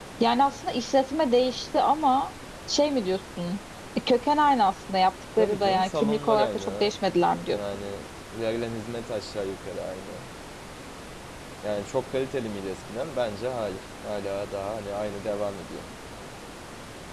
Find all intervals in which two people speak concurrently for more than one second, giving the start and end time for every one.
5.4-6.9

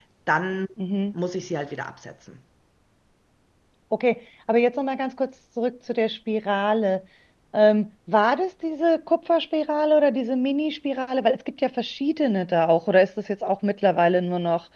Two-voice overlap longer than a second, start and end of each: none

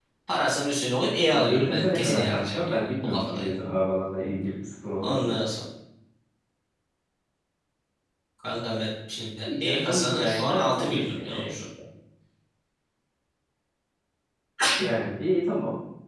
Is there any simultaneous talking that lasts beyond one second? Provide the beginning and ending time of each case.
1.4-3.6, 9.6-11.5

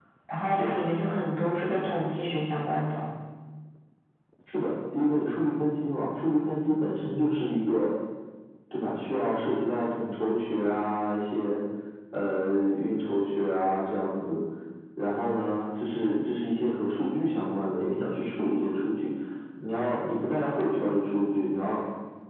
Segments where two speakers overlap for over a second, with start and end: none

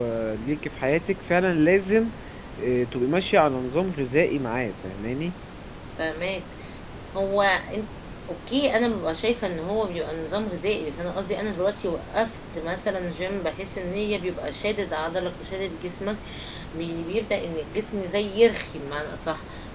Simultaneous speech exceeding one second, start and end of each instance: none

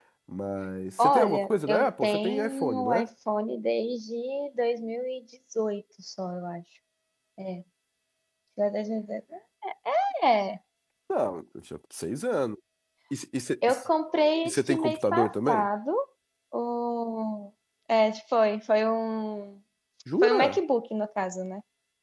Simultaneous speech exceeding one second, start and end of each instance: 1.0-3.0, 14.4-15.7

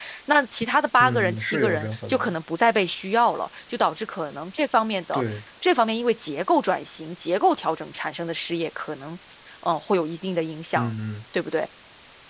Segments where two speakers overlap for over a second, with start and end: 1.0-2.3

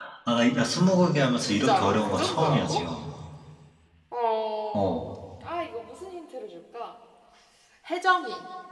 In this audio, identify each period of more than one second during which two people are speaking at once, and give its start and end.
1.4-2.8

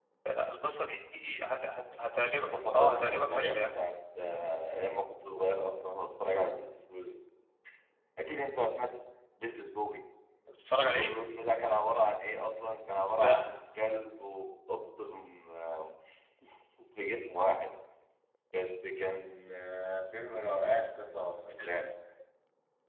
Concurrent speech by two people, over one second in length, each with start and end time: 2.4-3.7

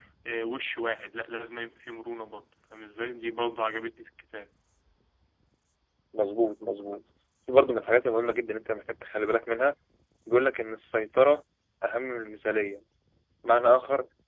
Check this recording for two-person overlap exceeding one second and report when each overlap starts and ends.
none

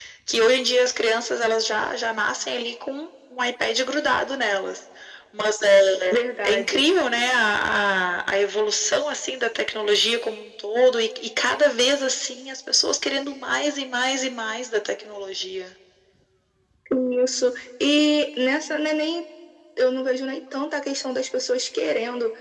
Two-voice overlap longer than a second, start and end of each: none

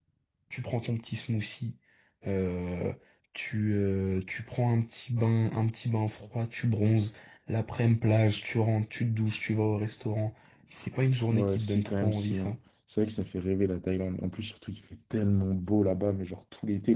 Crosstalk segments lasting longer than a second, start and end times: 11.3-12.6

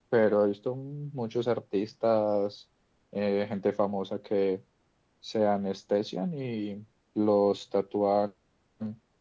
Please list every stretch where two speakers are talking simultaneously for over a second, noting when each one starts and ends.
none

